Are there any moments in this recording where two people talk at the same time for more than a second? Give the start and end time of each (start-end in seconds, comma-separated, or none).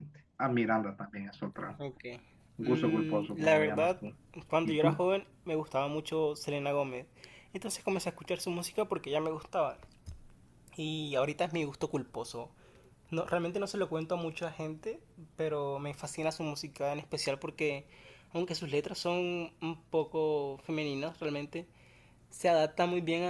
2.6-4.0